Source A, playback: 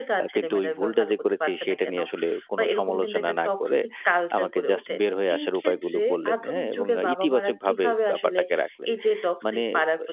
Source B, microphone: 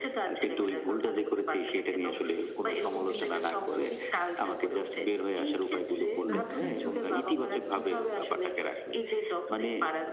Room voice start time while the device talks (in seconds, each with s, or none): 6.3 s